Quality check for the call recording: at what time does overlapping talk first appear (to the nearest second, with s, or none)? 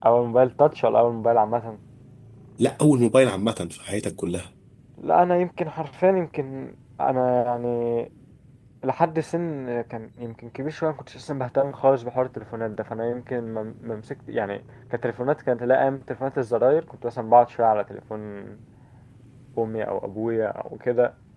none